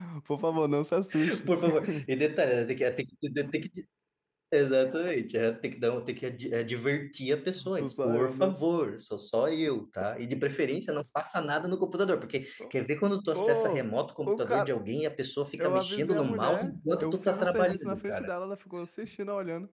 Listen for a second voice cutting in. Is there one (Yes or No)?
Yes